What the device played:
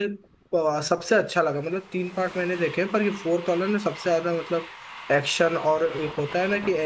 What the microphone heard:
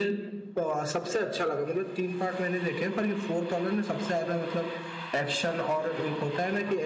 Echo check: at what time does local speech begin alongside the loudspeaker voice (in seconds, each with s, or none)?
none